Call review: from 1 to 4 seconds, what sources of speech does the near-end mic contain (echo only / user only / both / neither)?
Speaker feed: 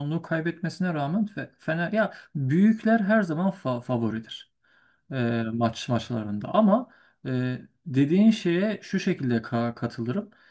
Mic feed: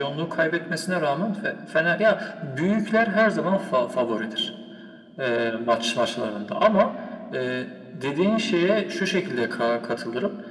echo only